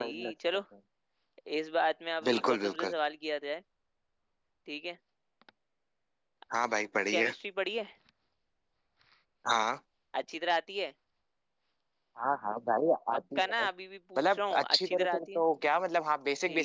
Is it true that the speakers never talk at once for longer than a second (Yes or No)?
No